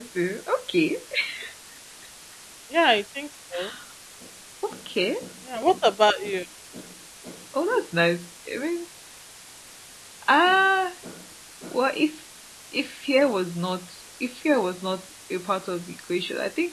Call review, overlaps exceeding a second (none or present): none